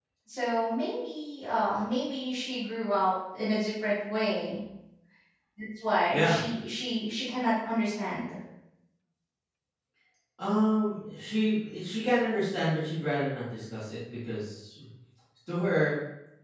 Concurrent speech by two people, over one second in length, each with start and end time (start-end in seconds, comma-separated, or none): none